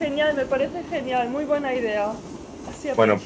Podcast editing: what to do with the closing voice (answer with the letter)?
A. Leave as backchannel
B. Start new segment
B